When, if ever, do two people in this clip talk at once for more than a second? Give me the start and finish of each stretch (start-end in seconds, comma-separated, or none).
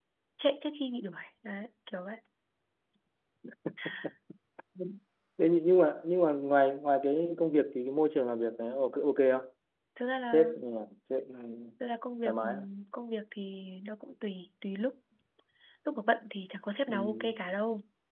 none